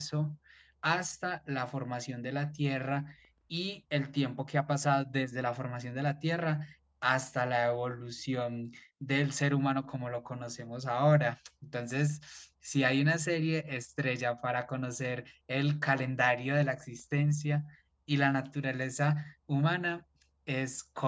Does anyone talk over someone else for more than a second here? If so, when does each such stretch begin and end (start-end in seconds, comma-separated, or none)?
none